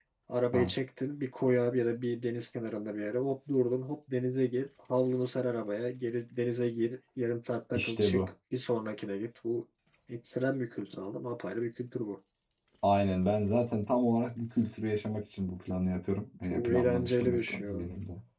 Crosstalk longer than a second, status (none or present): present